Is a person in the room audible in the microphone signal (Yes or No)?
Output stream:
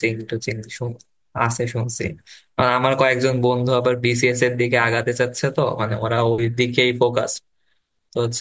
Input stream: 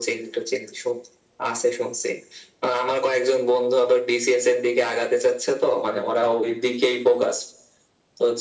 No